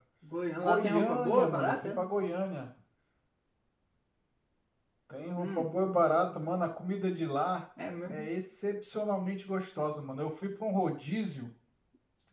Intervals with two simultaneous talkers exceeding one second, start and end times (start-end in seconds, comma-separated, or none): 0.6-2.0